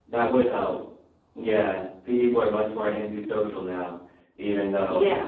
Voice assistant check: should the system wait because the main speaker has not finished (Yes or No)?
No